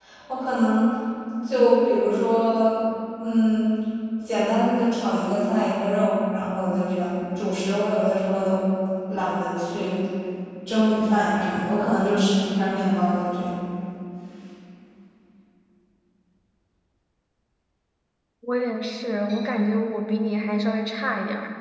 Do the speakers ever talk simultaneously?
No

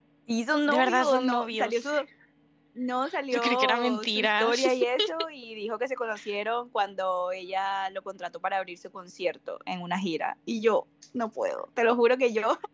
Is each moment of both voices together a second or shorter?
No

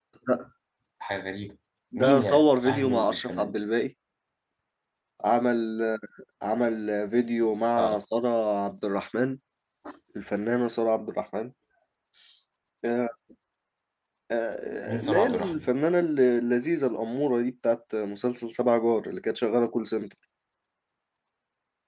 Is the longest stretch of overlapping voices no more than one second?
No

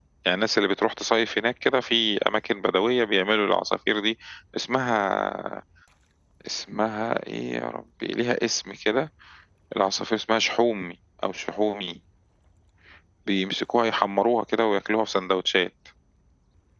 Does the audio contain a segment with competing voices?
No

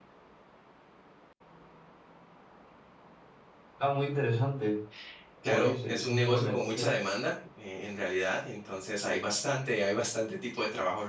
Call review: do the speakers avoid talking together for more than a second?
No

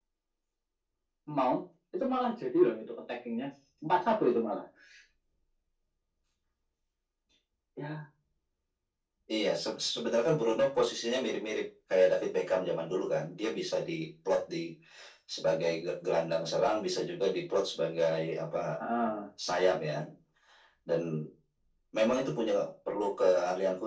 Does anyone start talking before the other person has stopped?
No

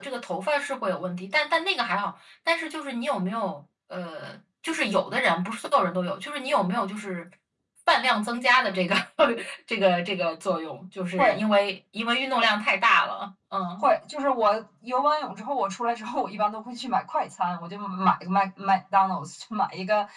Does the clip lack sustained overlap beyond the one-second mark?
Yes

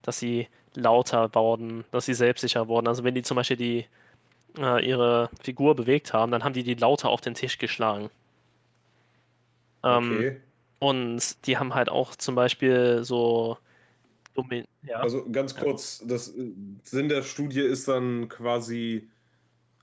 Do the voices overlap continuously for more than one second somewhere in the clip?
No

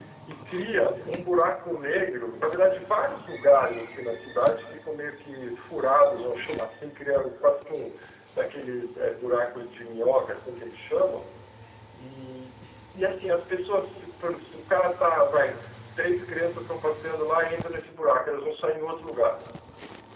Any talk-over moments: No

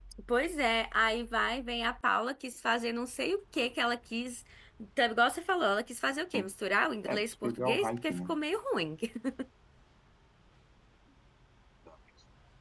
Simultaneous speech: Yes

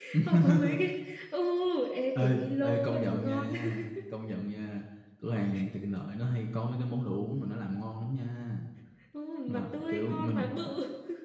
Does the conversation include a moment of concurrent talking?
Yes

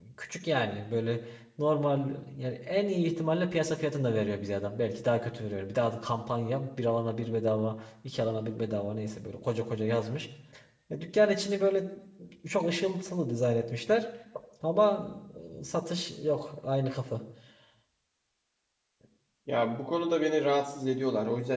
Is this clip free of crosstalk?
Yes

